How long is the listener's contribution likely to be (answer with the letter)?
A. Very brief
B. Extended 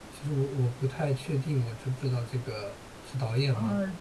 B